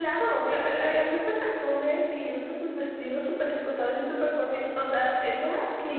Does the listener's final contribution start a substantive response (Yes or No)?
Yes